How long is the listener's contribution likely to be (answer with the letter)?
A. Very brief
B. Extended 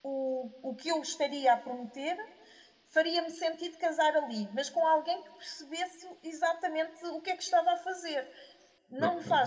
A